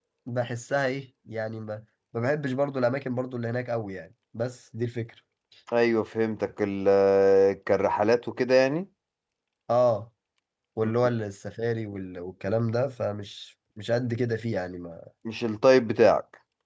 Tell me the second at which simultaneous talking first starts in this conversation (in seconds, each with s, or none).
none